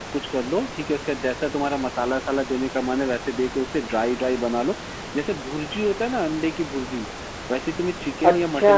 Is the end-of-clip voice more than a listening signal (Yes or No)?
No